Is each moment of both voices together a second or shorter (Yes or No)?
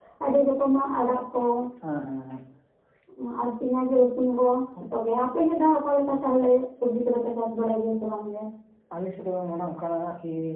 Yes